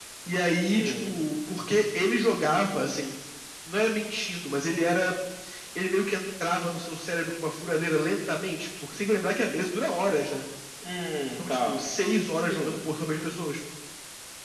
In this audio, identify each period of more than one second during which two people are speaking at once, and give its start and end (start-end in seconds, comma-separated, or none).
none